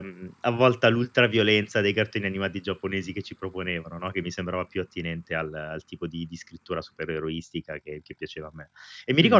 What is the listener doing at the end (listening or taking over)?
taking over